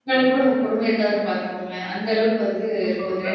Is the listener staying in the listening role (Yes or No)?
No